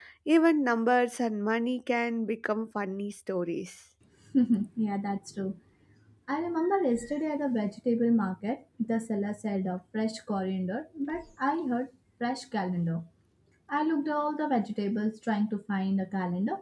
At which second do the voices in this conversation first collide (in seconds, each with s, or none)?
none